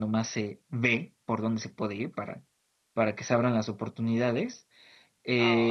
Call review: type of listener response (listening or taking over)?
listening